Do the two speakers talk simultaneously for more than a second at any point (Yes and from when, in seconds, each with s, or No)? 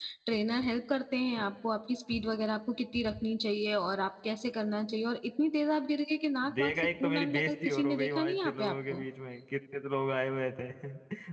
Yes, from 6.4 s